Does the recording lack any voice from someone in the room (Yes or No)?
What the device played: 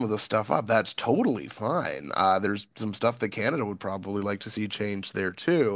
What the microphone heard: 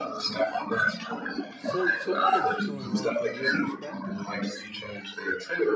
No